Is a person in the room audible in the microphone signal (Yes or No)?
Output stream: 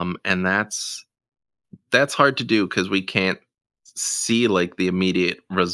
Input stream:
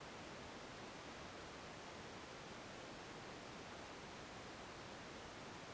No